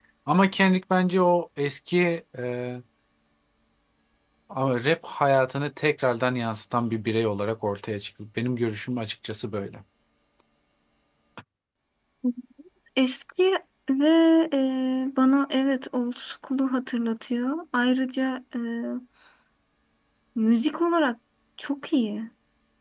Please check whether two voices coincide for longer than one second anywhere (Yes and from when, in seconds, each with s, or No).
No